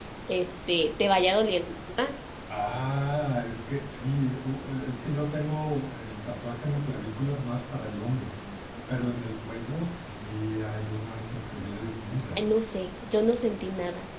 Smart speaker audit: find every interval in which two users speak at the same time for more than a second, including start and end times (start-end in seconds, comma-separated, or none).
none